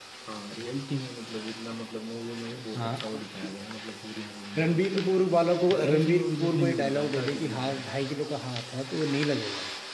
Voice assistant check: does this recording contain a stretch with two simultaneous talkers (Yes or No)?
Yes